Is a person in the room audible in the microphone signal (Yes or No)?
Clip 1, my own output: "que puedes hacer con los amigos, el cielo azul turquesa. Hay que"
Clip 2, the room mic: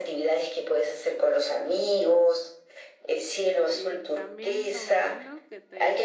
Yes